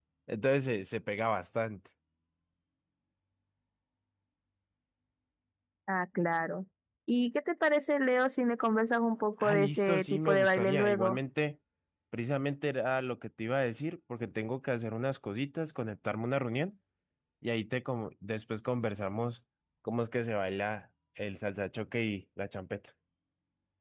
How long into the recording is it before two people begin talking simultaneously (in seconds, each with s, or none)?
9.4 s